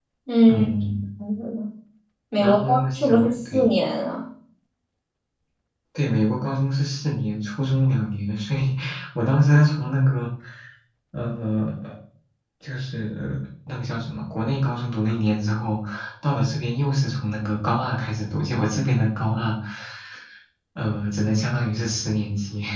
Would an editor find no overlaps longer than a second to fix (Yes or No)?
No